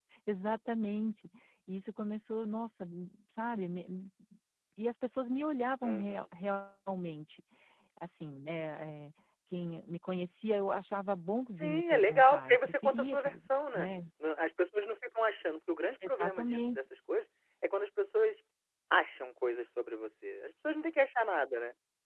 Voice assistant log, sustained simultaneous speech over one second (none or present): present